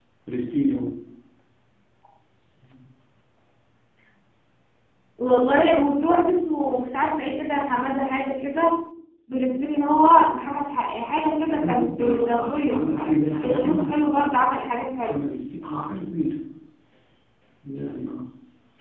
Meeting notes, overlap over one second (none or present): present